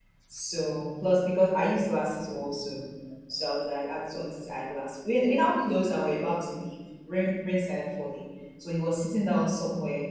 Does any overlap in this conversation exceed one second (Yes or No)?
No